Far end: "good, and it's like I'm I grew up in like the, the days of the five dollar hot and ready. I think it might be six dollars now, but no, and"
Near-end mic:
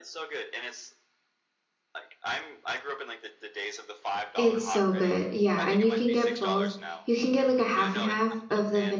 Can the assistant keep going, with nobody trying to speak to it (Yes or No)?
No